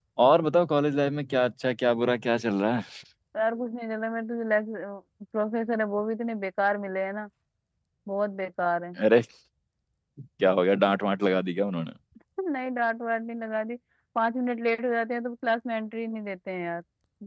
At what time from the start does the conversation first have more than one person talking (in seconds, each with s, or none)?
none